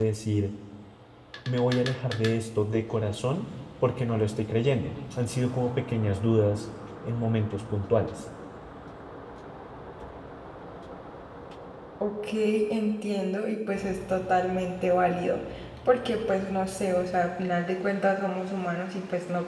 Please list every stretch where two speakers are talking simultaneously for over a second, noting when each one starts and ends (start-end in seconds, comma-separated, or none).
none